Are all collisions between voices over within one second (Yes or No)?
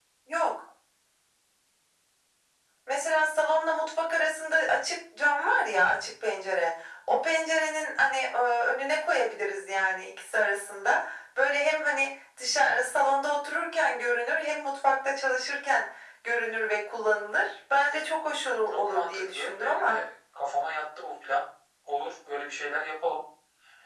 No